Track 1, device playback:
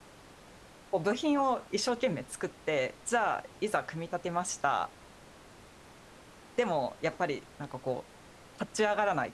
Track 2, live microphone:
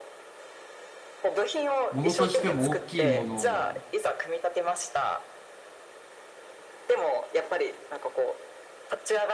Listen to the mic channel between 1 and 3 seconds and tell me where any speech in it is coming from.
both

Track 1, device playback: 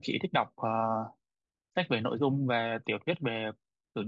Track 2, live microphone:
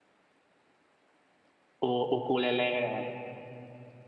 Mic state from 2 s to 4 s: user only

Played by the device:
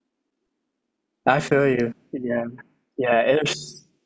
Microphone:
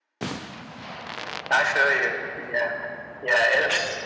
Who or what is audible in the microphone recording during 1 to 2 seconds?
echo only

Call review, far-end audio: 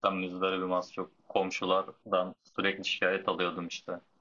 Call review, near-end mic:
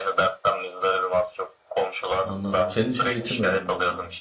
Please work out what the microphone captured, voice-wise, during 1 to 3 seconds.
both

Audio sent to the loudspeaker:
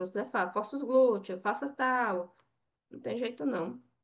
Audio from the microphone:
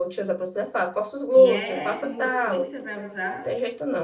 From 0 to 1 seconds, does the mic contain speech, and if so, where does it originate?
echo only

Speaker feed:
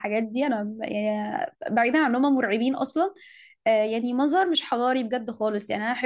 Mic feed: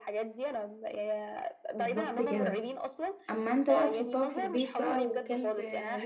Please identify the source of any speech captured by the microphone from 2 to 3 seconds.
both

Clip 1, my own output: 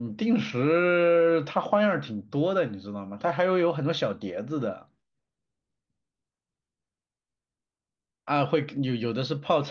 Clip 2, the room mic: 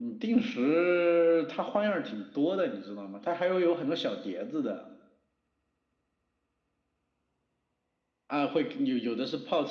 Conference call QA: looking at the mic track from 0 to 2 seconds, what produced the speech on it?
echo only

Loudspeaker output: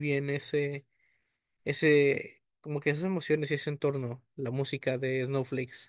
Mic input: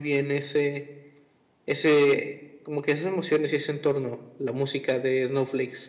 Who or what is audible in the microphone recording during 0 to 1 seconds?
echo only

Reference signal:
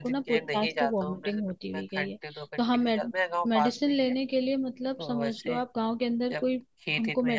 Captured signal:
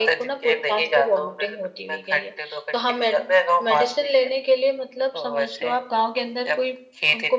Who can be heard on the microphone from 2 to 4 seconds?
echo only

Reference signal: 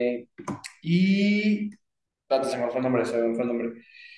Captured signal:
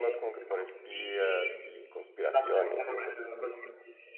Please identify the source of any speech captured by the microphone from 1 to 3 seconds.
both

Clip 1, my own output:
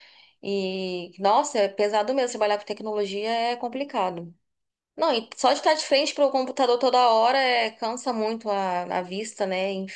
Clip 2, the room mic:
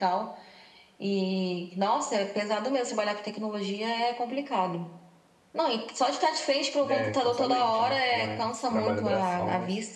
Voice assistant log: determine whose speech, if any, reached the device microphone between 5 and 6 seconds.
echo only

